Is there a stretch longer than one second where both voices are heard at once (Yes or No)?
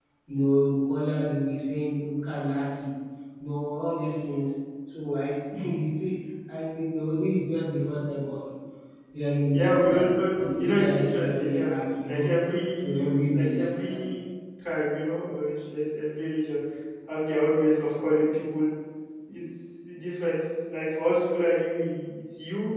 Yes